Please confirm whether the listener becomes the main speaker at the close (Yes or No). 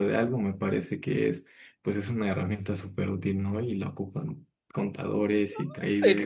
Yes